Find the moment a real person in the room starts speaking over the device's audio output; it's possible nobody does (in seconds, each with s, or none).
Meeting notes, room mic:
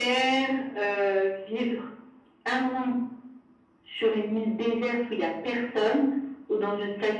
none